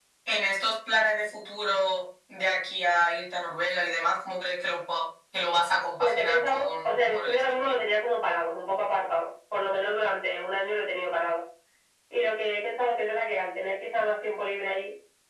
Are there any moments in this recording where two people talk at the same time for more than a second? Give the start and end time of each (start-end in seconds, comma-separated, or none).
6.0-7.8